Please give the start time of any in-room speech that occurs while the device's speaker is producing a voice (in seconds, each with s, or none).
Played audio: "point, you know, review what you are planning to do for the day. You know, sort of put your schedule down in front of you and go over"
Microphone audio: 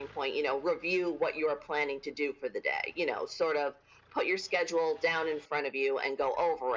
none